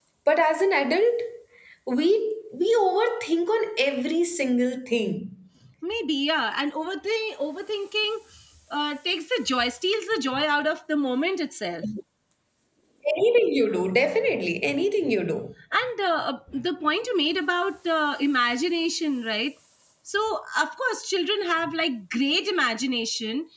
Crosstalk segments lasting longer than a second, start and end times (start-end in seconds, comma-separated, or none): none